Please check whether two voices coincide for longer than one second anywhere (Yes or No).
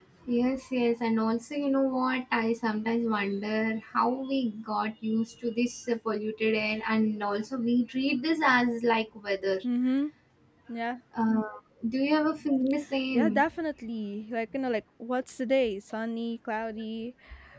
No